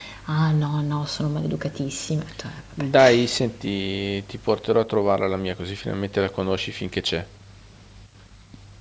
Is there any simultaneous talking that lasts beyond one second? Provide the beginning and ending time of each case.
none

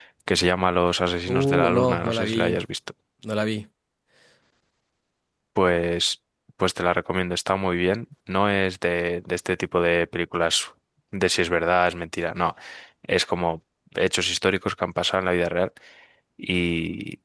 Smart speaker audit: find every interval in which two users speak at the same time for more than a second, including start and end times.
1.3-2.6

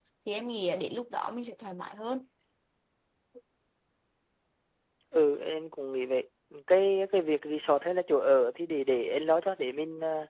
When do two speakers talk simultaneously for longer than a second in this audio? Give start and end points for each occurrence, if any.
none

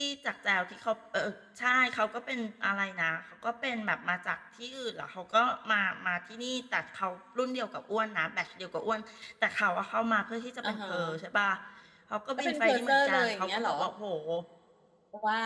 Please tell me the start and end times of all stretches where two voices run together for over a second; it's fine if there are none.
12.4-13.7

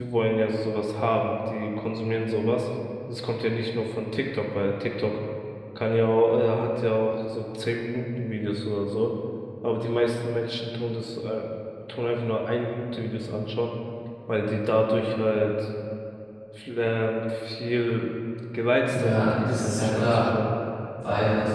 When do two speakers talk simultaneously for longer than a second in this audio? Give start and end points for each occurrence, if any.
18.9-20.2

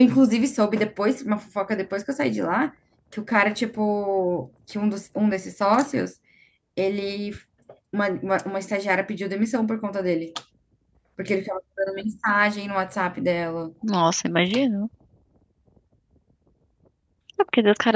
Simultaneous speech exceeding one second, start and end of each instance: none

